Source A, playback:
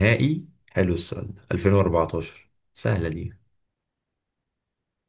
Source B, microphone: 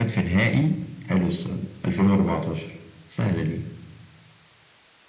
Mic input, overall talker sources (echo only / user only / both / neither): echo only